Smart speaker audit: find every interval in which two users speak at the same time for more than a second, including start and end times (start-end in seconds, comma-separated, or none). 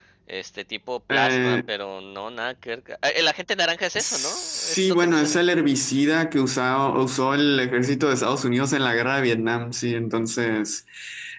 4.0-5.4